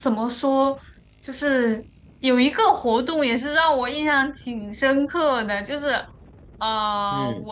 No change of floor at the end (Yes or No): Yes